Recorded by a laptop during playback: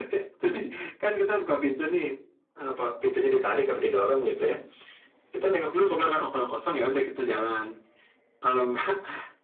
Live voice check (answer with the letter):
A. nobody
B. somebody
A